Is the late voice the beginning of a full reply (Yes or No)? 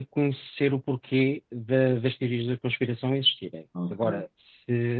No